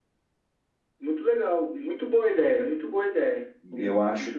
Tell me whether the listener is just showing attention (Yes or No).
No